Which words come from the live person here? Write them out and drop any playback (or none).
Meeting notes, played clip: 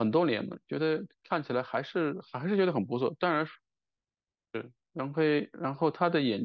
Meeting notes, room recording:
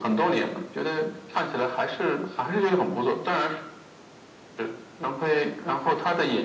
none